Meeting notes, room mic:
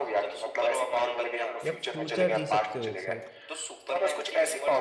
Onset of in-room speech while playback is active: 1.6 s

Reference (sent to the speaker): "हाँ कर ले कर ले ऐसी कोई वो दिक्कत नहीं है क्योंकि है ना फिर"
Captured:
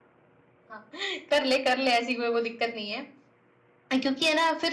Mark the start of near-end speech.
none

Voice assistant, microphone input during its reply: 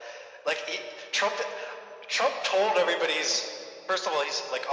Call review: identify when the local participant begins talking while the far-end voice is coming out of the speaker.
none

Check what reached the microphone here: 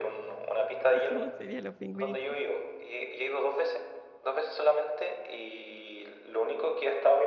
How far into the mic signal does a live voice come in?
0.9 s

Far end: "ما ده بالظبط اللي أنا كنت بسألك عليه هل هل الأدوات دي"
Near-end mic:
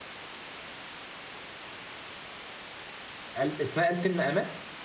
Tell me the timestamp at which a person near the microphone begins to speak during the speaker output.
3.4 s

